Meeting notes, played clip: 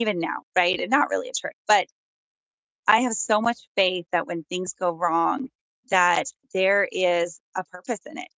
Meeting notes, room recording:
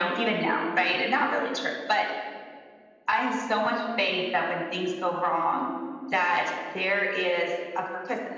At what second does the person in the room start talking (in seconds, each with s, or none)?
none